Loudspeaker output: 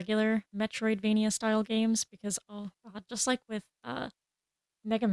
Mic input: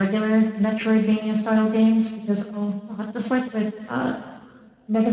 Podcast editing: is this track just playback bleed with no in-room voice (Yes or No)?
Yes